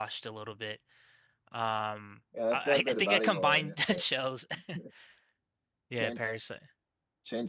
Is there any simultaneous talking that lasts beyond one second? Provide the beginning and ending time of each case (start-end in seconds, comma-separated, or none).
2.5-4.0